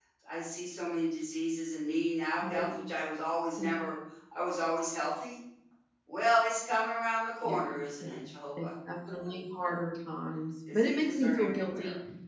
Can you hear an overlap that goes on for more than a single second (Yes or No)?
Yes